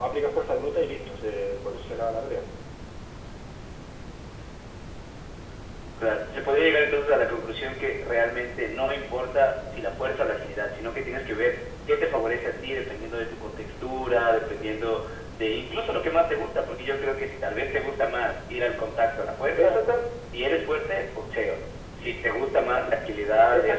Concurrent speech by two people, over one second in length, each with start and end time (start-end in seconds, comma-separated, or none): none